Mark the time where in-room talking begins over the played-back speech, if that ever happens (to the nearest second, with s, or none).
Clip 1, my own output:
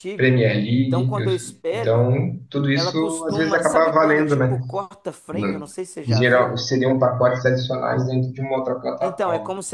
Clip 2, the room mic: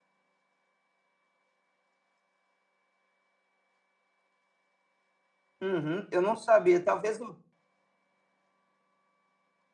6 s